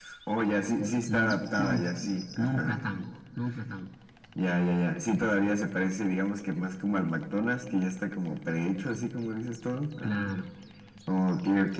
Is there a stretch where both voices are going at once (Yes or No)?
Yes